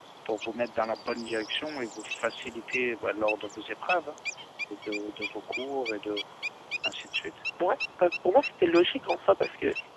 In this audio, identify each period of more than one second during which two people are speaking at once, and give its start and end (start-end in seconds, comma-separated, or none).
none